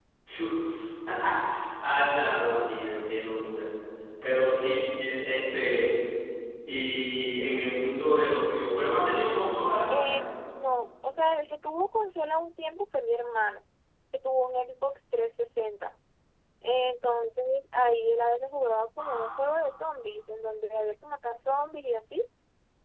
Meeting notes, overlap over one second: none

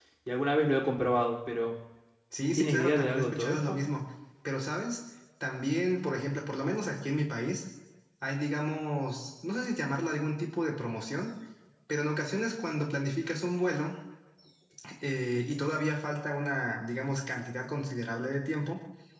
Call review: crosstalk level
present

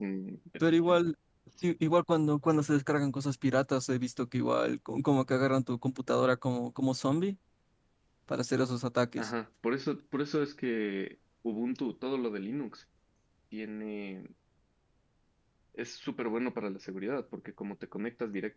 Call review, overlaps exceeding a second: none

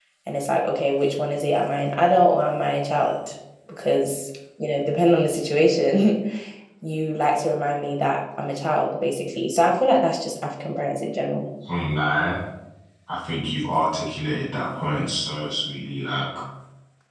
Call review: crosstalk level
none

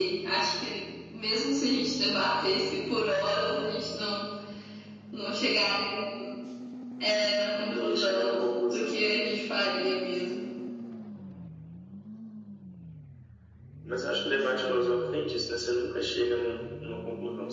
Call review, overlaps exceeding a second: present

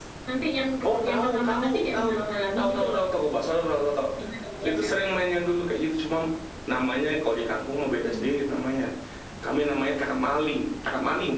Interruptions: present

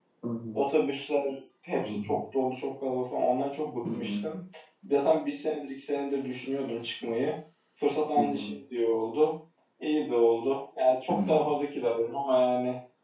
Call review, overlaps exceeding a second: none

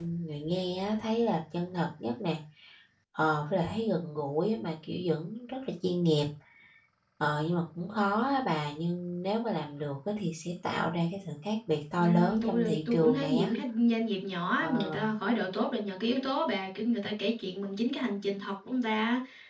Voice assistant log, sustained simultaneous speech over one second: present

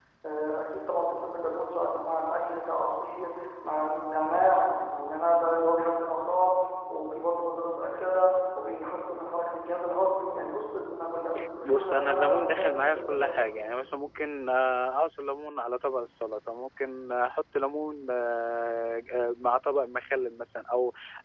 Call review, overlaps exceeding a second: present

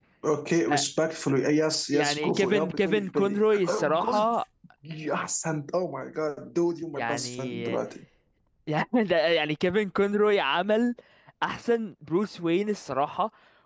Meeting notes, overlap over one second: present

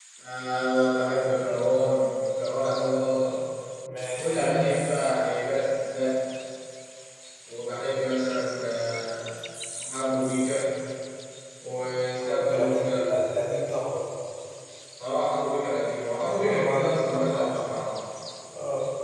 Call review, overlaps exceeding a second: present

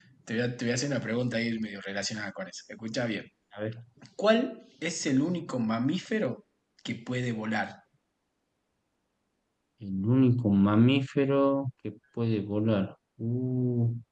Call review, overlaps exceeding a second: none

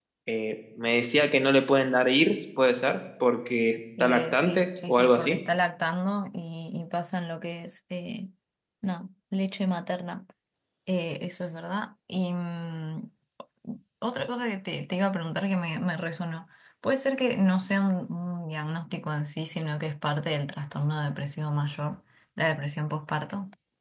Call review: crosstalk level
present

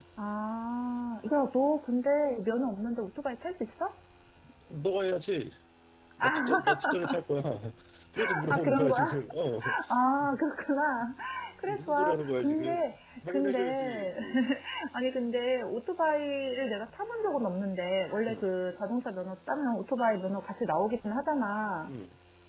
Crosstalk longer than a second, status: present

